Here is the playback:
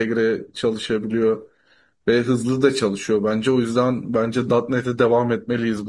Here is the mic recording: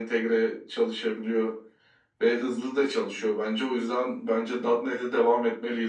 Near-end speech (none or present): none